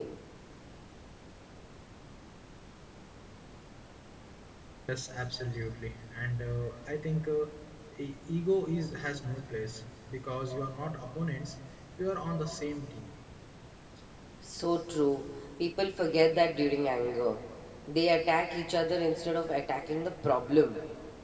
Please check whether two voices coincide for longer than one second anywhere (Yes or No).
No